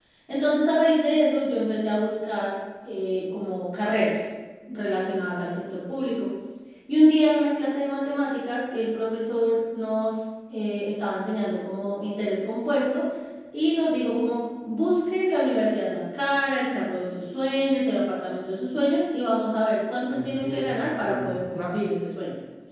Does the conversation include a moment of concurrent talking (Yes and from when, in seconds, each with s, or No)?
Yes, from 20.1 s